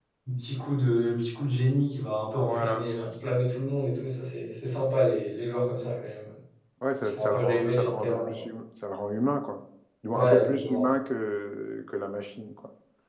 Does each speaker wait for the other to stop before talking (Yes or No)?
No